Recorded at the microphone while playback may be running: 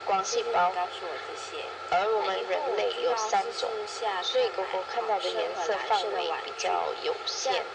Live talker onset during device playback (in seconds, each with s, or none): none